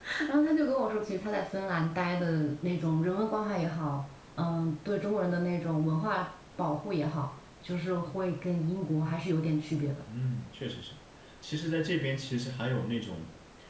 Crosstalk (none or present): none